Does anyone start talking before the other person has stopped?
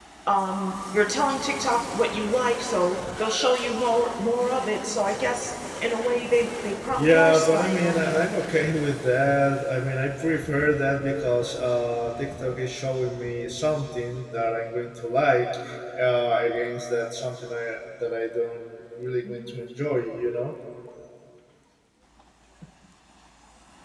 Yes, from 6.9 s

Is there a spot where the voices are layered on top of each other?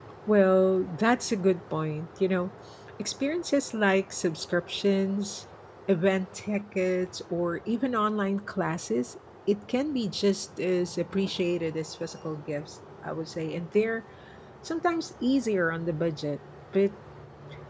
No

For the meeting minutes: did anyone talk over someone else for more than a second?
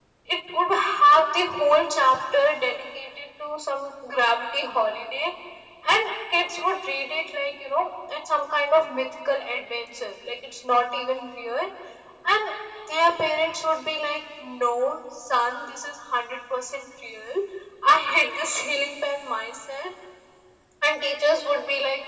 No

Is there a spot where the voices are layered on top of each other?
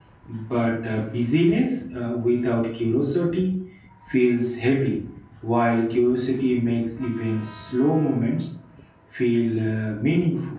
No

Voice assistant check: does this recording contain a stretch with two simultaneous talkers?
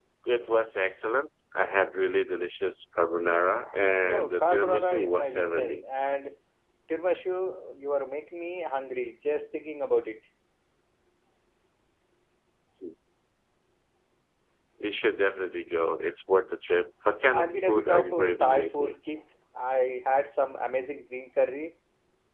Yes, from 4.1 s

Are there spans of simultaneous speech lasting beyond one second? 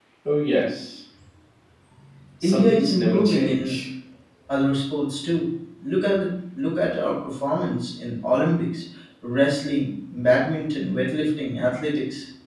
Yes, from 2.4 s

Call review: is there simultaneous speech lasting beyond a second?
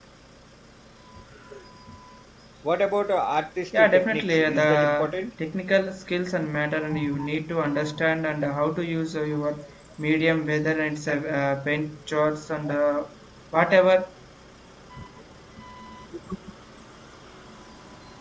Yes, from 3.7 s

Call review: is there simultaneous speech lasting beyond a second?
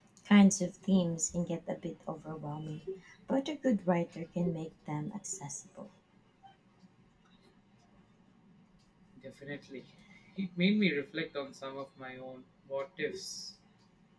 No

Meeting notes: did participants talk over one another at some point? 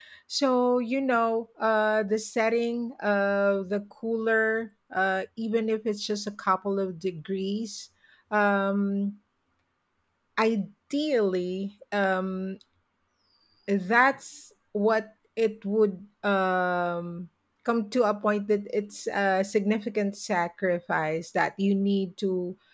No

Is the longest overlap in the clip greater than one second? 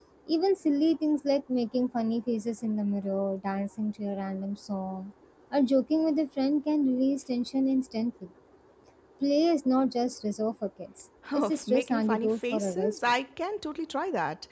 Yes, from 11.2 s

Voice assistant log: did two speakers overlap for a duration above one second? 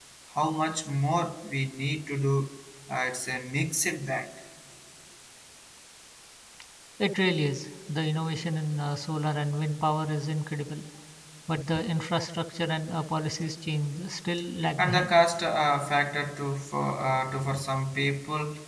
No

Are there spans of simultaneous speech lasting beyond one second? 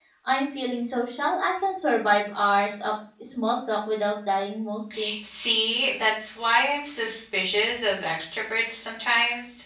No

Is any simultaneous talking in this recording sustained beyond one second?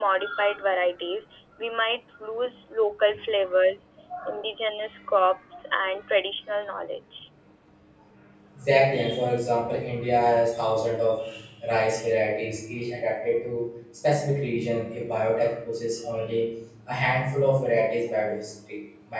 No

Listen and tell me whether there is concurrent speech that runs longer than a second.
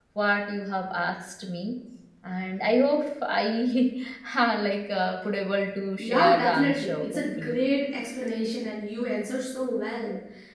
Yes, from 6.0 s

